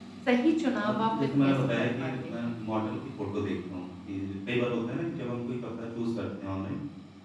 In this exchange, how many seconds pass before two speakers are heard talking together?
0.8 s

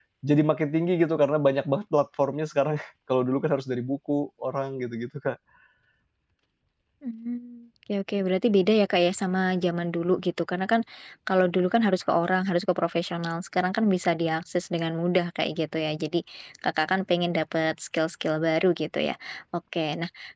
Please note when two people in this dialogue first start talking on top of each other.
none

